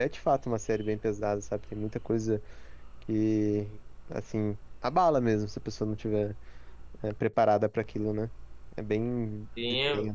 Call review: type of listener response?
taking over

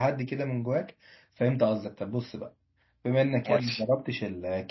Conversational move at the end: listening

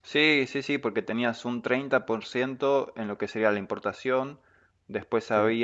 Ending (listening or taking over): listening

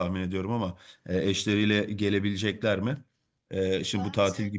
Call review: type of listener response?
listening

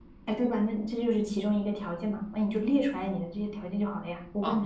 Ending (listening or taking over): taking over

